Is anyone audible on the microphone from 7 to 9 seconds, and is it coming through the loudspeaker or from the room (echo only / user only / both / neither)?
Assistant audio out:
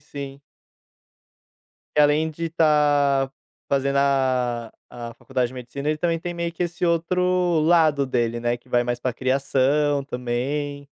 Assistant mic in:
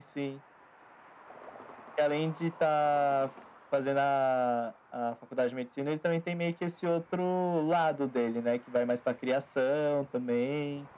echo only